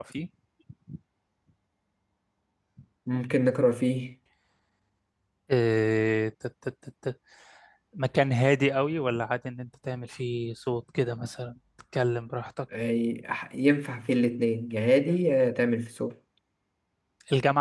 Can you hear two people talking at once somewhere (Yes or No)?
No